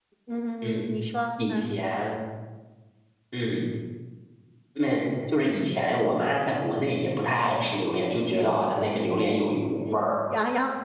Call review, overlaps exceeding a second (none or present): none